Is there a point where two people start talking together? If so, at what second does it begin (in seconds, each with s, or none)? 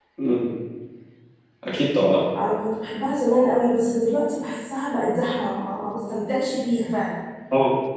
none